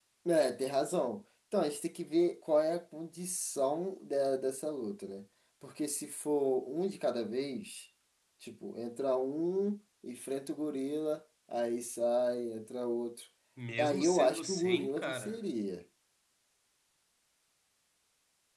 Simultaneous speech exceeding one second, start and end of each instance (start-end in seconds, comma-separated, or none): 13.8-15.4